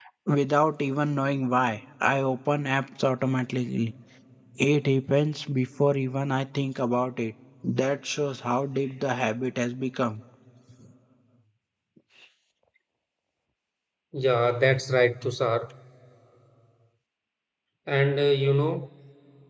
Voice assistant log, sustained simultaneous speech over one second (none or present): none